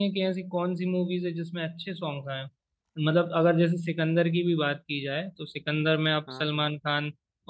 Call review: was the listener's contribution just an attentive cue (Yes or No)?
Yes